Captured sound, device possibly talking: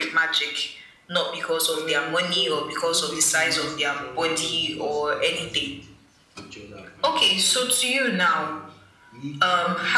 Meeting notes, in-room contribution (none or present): present